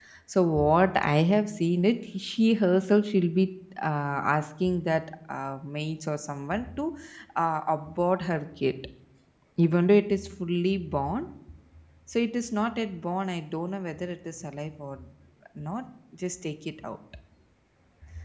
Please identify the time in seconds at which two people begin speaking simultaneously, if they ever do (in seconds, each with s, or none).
none